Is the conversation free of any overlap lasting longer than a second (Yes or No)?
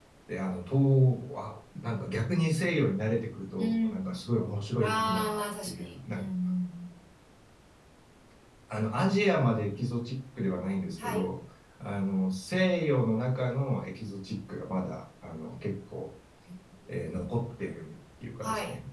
No